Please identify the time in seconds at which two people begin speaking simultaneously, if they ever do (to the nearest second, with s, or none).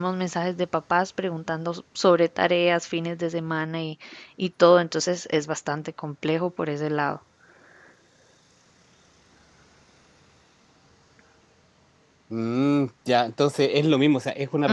none